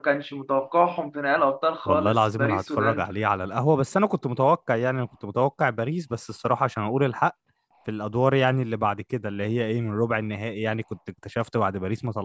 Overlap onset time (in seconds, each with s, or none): 1.8 s